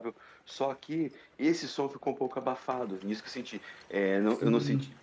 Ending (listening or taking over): listening